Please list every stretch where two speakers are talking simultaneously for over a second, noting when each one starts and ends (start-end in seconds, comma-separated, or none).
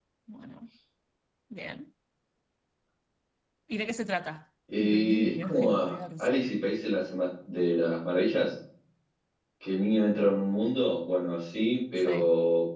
4.8-6.3